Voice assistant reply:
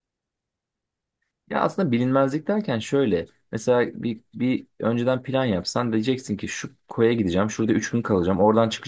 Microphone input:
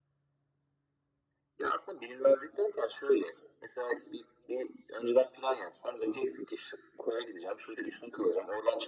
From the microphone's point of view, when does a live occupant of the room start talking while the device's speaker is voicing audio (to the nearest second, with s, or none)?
none